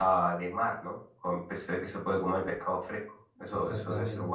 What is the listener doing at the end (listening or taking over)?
taking over